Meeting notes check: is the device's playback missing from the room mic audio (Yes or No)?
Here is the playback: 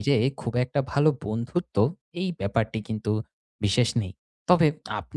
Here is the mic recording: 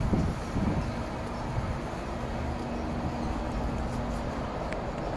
Yes